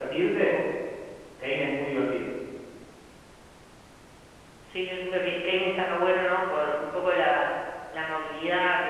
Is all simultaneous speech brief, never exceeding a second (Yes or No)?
Yes